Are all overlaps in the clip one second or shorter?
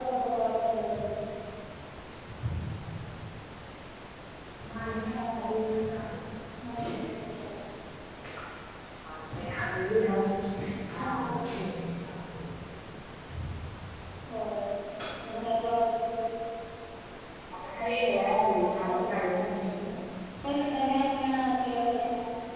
No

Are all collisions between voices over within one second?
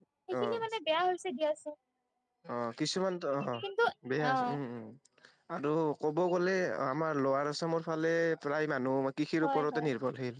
Yes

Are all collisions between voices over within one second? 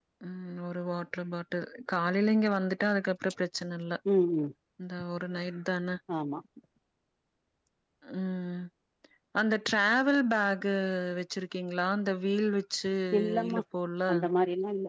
Yes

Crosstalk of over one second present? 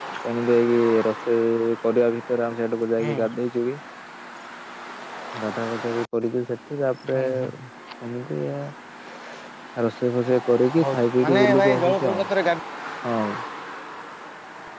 Yes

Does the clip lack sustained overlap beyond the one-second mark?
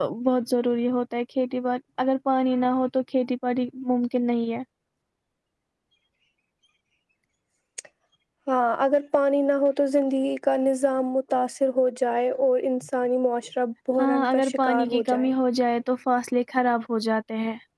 No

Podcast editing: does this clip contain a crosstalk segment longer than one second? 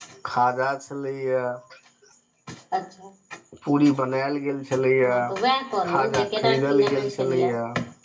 Yes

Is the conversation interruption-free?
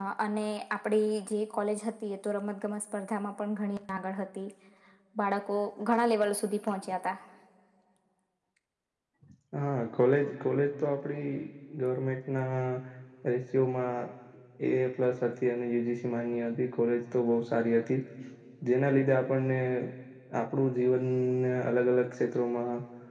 Yes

